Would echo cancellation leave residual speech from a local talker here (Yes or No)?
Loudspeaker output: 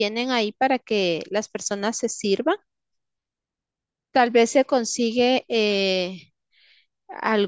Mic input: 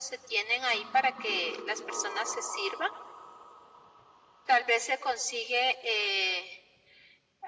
No